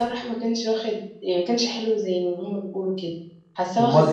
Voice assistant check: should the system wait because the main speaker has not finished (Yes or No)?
No